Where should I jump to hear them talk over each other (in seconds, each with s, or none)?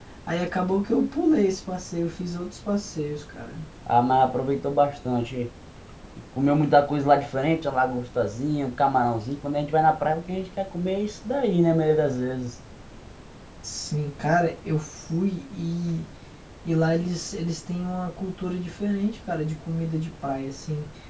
none